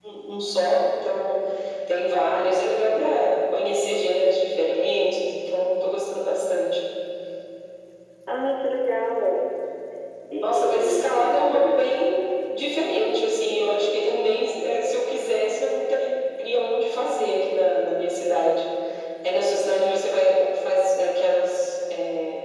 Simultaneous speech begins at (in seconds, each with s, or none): 10.4 s